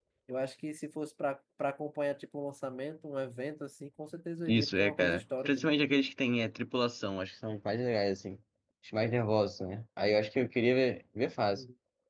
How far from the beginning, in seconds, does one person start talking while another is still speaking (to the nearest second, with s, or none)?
4 s